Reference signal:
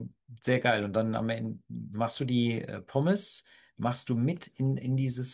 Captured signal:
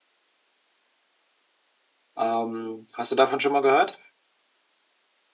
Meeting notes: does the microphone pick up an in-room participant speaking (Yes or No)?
Yes